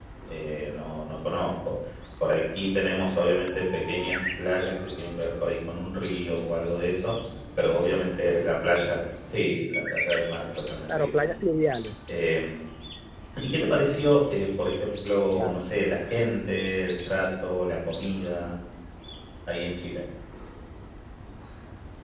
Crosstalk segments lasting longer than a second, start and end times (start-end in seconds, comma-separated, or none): none